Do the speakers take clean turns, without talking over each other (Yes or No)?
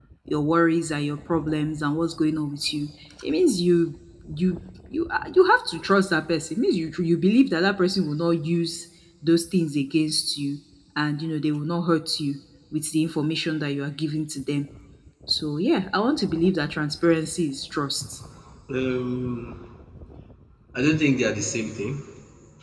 Yes